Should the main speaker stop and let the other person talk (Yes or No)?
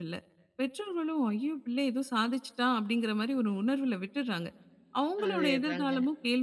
No